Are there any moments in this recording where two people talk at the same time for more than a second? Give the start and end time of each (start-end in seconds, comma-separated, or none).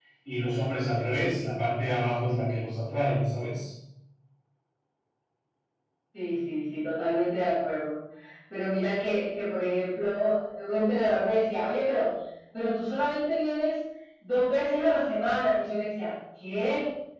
none